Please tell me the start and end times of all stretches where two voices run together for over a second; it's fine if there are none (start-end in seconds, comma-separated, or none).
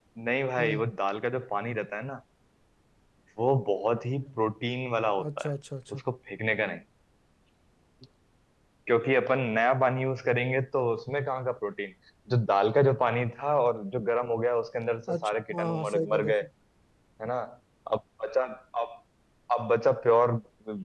15.1-16.3